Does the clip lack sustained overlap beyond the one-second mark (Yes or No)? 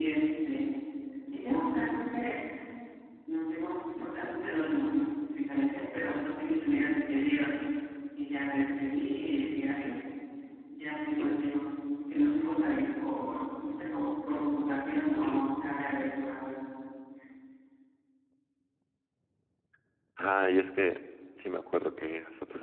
Yes